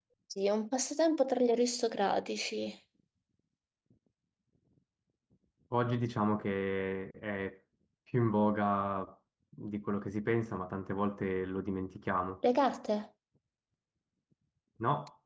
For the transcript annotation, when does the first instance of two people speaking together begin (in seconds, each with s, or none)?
none